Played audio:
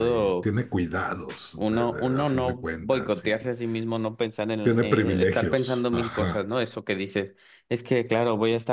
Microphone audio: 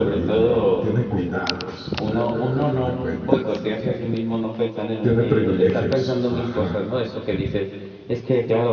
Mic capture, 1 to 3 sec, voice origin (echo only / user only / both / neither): echo only